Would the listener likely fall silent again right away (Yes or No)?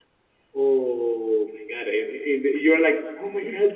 Yes